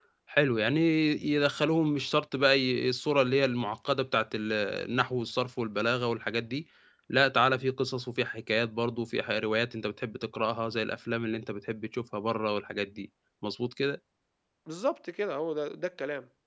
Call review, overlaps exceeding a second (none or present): none